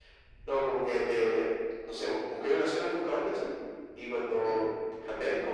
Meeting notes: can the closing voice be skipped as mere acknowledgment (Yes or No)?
Yes